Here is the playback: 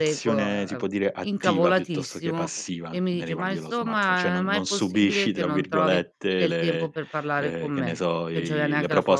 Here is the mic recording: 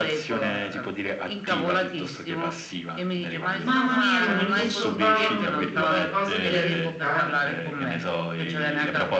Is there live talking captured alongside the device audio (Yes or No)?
Yes